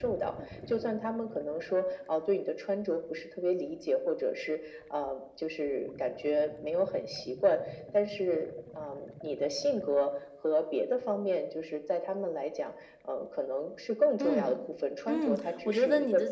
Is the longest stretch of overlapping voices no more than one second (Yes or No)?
No